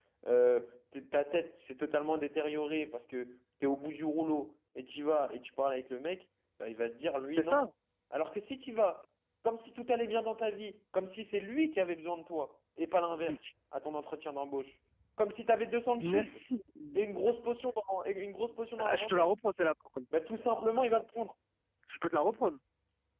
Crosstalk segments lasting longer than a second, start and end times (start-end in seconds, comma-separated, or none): none